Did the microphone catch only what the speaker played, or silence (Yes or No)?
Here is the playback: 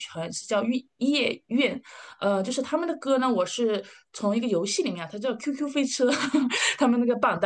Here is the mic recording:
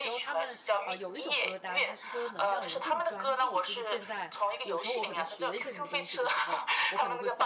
No